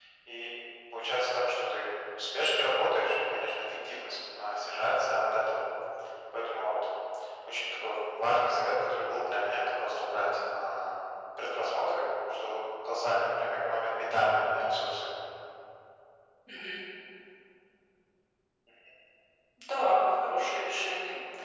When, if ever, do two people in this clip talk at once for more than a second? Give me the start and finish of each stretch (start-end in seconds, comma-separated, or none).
none